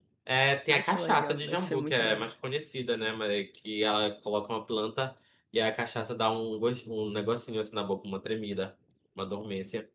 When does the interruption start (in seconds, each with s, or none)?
0.7 s